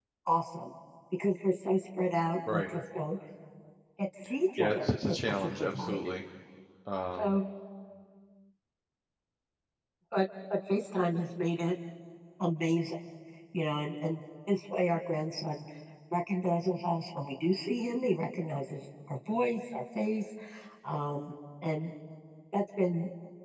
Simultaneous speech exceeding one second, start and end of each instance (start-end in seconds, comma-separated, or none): 4.6-6.0